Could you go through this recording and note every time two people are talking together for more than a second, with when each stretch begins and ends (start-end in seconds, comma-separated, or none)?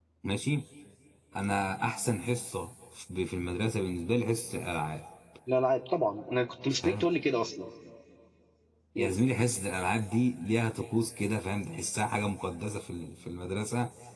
none